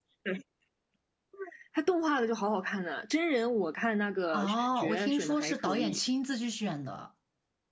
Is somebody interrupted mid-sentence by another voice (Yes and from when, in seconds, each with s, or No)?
Yes, from 4.3 s